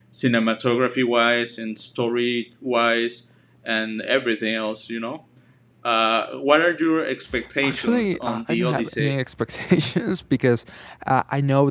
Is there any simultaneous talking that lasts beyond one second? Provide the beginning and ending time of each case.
7.6-9.1

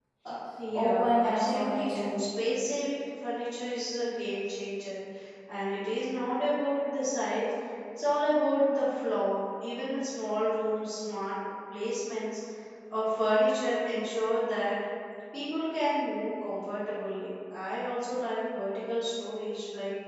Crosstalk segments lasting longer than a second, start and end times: 0.7-2.2

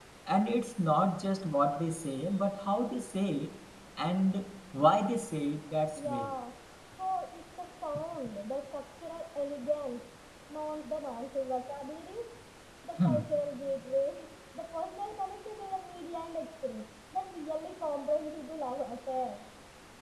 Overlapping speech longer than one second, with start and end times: none

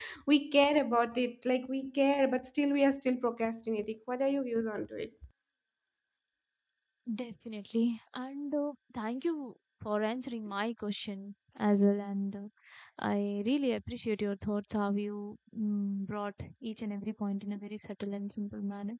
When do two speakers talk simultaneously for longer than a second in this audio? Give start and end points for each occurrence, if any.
none

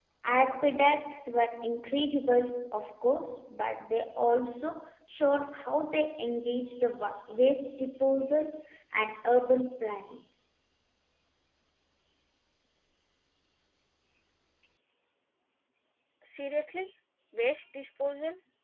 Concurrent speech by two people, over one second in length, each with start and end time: none

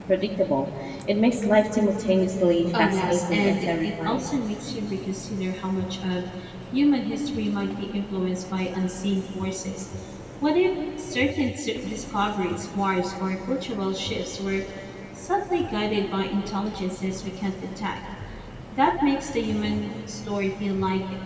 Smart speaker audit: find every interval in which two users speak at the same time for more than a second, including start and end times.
2.8-4.3

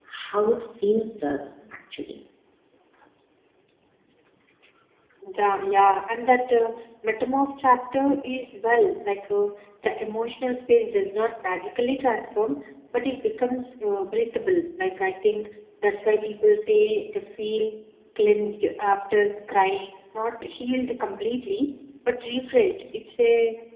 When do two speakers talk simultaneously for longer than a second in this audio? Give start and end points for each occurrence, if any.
none

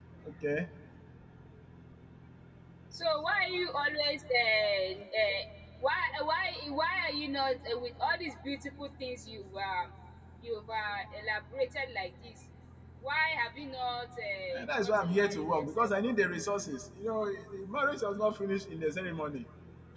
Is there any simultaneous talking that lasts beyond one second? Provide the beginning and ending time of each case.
14.5-15.9

